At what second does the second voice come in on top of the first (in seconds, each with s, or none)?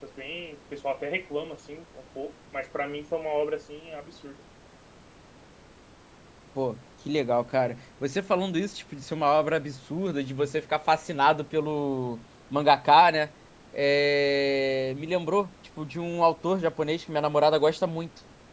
none